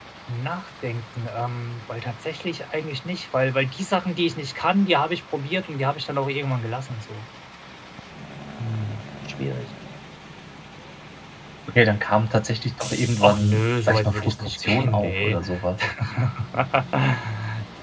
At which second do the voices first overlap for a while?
13.2 s

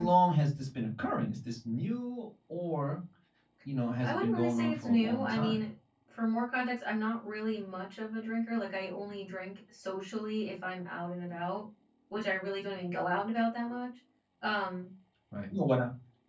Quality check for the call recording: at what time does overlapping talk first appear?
4.0 s

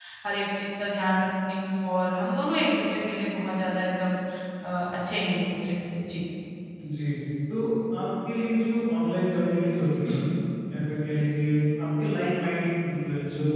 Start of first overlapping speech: none

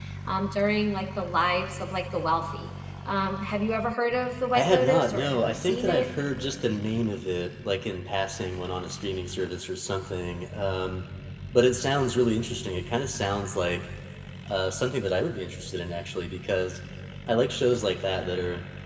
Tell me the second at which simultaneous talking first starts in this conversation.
4.5 s

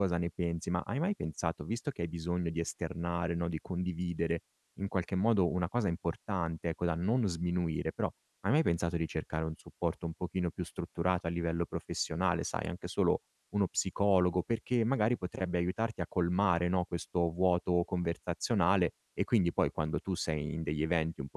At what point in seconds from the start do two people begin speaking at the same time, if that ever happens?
none

